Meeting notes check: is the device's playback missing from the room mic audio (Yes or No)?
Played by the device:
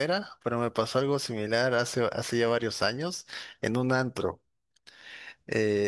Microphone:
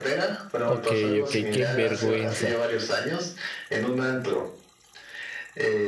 No